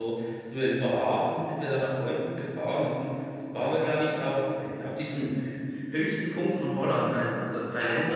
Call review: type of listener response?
taking over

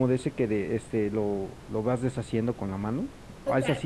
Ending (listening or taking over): taking over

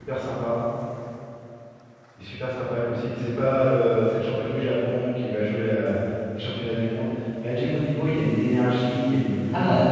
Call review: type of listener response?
taking over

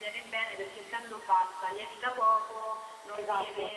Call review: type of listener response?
listening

